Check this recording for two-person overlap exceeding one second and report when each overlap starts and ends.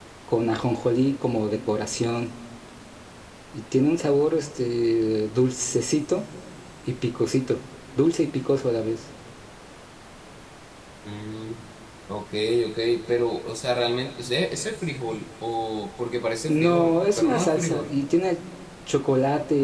16.5-17.9

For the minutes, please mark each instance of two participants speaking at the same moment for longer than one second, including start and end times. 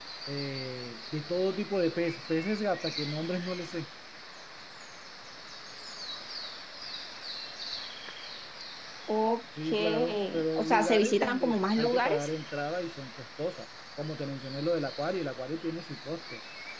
9.6-12.3

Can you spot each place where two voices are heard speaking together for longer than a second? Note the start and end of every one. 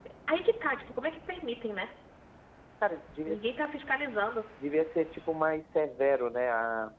none

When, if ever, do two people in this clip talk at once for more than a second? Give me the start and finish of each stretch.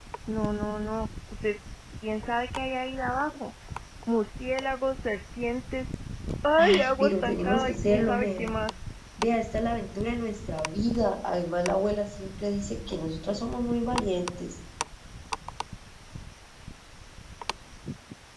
6.6-8.5

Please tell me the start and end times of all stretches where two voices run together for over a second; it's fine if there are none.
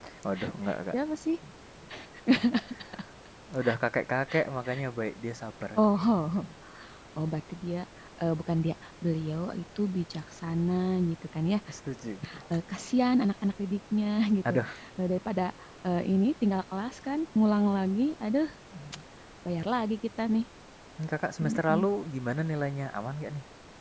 none

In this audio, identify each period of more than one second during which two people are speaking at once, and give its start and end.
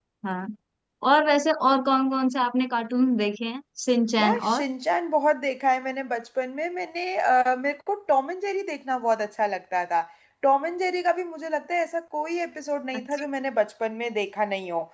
none

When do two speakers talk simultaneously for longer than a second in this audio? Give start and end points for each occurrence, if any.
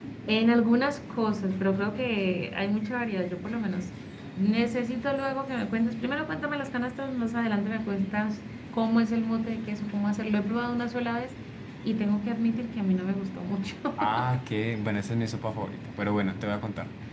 none

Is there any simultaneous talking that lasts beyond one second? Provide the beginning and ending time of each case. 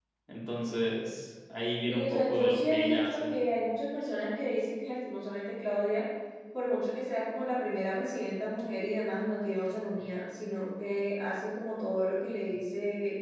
1.9-3.3

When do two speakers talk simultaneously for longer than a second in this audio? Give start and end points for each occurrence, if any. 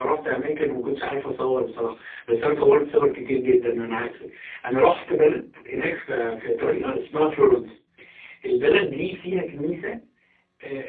none

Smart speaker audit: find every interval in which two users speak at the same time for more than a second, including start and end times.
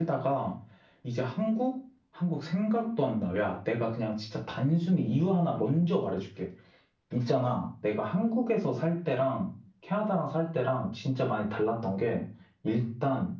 none

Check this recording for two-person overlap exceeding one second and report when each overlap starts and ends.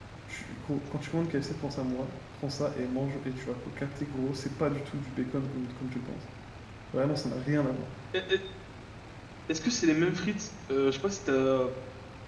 none

